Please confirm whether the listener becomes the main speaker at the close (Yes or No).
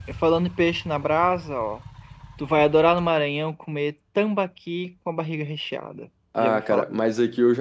Yes